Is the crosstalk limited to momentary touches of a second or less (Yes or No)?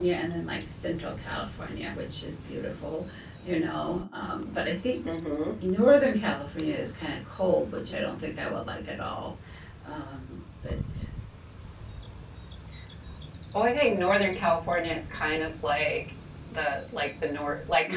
Yes